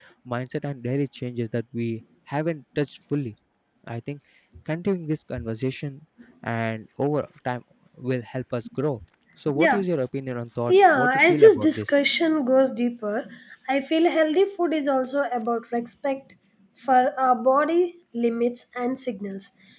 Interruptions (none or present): present